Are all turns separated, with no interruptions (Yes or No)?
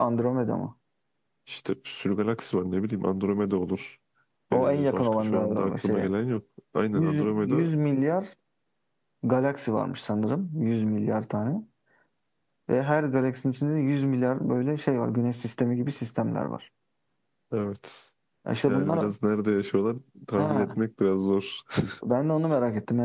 No